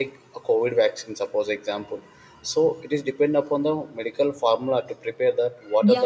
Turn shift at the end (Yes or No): Yes